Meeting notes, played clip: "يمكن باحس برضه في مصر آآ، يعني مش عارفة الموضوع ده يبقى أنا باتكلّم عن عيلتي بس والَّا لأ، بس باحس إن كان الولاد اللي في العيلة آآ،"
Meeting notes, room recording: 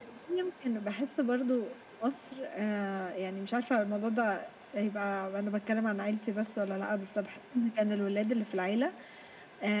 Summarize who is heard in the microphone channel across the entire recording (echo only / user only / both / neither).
echo only